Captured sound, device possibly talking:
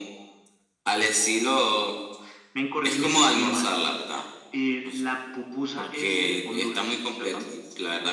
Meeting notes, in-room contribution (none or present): none